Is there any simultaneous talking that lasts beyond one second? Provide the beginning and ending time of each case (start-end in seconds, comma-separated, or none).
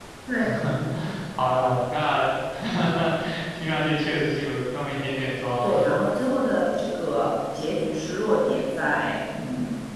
none